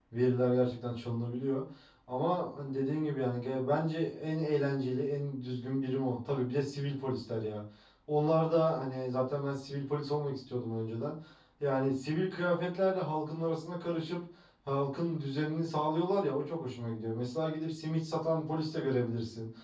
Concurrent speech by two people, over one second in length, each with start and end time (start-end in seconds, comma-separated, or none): none